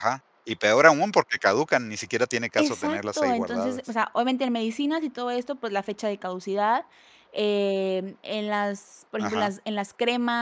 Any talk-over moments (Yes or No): Yes